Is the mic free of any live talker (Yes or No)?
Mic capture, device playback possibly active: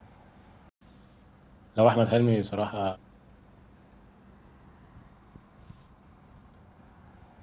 No